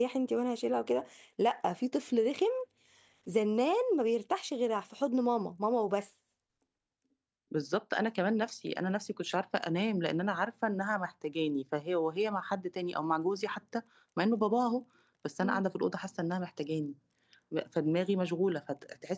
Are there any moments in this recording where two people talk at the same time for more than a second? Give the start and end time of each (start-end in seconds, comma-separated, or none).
none